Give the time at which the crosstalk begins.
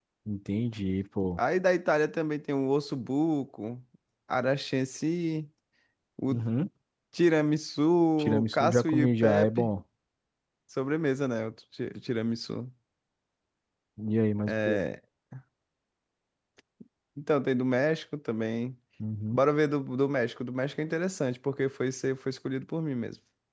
8.4 s

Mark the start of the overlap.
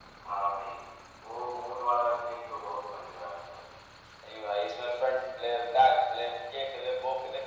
none

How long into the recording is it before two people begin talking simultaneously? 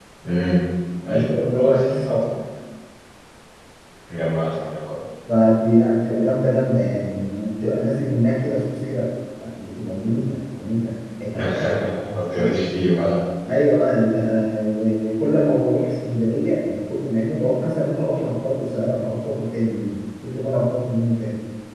1.1 s

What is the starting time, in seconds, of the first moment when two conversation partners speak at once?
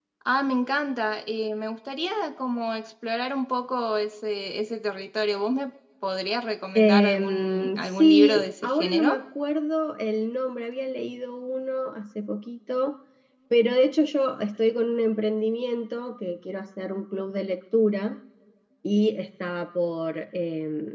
6.8 s

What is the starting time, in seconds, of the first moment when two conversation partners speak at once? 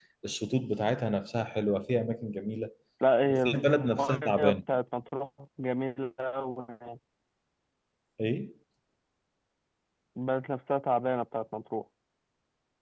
3.2 s

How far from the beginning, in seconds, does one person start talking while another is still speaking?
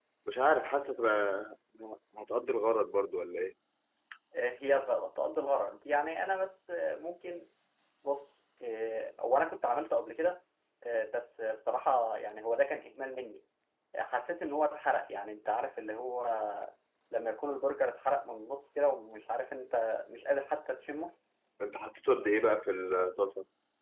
none

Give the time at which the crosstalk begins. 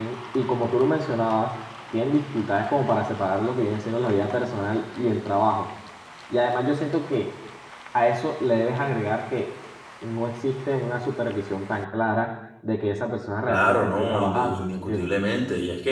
13.5 s

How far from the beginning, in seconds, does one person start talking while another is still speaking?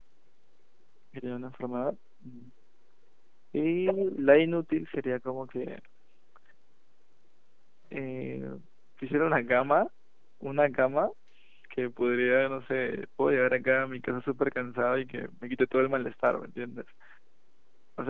none

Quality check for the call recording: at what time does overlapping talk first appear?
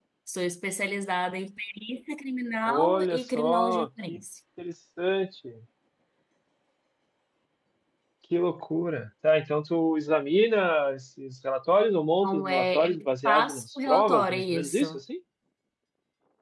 2.7 s

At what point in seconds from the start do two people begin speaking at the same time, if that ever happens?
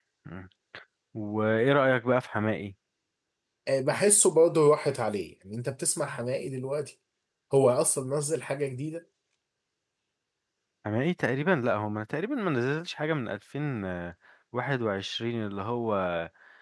none

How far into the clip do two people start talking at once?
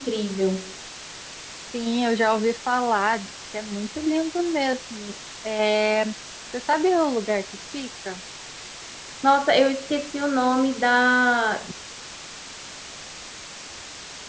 none

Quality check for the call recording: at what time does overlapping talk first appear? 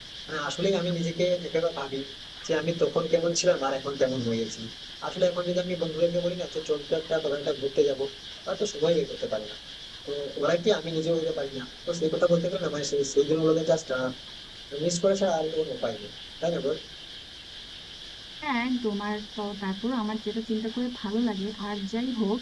none

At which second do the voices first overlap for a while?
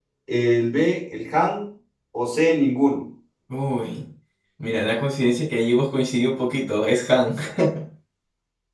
none

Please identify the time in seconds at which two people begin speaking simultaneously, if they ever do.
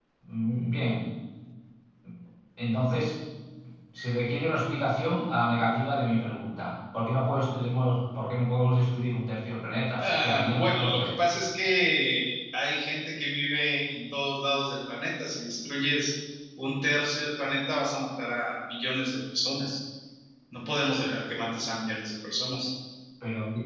10.0 s

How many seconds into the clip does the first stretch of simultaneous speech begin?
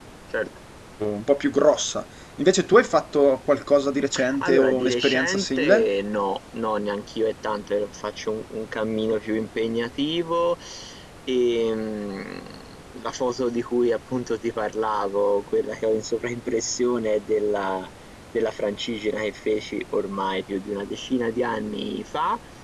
4.1 s

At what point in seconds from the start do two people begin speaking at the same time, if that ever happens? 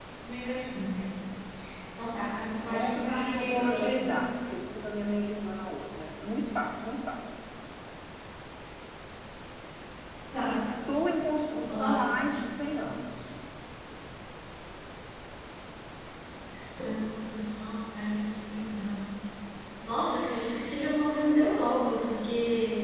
2.7 s

